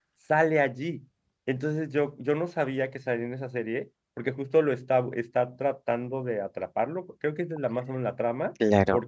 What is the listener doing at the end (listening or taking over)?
listening